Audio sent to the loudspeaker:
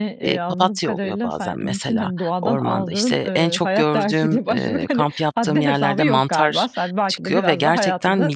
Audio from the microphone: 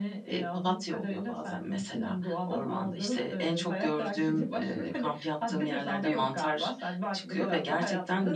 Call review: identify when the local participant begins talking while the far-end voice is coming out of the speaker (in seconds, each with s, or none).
none